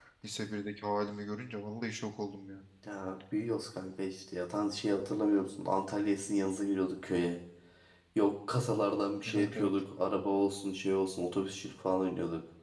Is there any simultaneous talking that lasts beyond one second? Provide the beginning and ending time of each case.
none

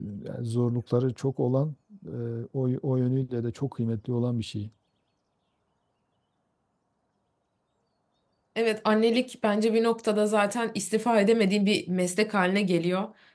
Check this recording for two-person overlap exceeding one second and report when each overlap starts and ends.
none

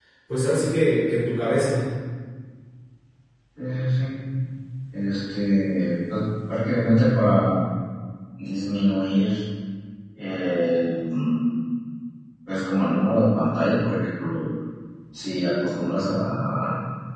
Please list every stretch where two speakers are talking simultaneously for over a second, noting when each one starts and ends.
none

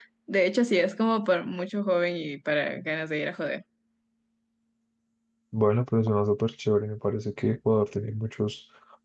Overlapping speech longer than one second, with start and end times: none

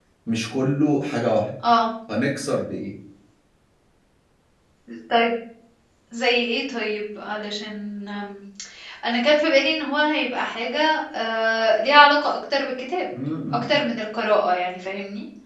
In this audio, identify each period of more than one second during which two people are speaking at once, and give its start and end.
none

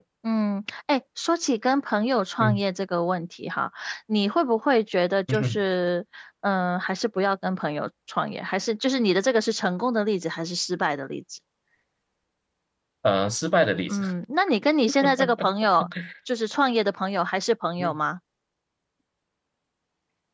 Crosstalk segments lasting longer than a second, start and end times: none

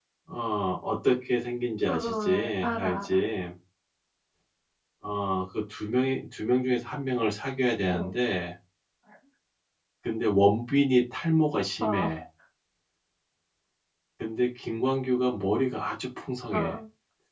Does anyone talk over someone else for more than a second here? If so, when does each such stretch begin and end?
1.8-3.2

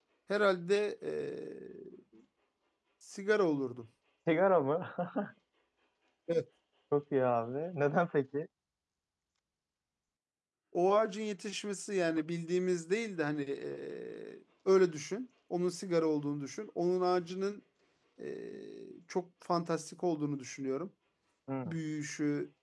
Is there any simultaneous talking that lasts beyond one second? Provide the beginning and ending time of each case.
none

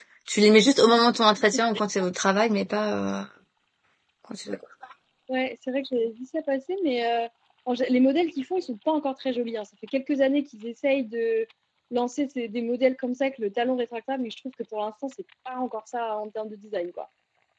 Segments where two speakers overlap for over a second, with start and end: none

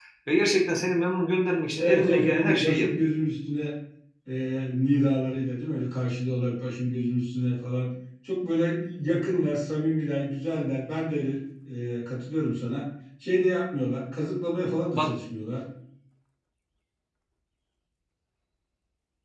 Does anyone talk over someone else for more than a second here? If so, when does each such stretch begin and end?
1.8-3.1

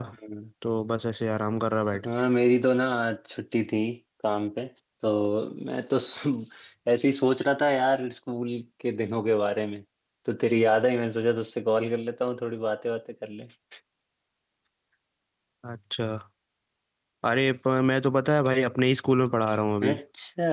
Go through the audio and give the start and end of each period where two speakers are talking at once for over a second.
none

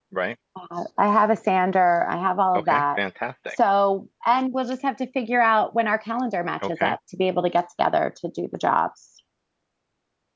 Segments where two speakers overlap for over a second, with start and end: none

